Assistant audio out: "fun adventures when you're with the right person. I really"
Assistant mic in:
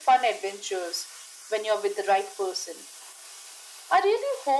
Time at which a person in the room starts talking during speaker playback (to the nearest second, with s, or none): none